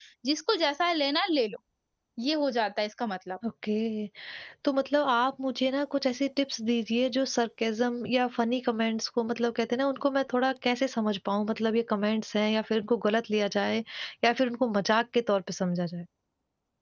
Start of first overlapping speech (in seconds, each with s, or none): none